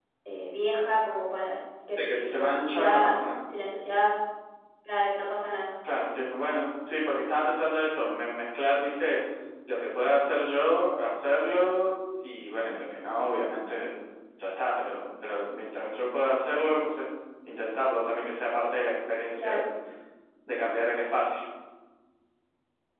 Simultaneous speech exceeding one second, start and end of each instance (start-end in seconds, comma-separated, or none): 2.0-3.2